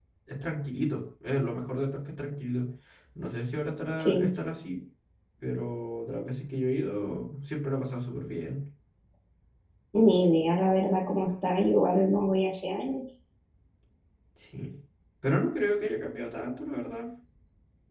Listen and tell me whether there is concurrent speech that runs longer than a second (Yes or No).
No